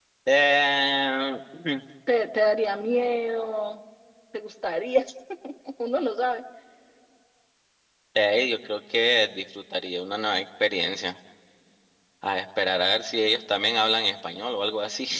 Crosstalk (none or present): none